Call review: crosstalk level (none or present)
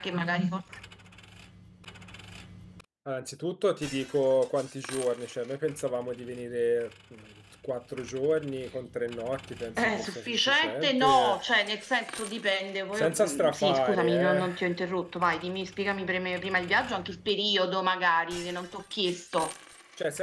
present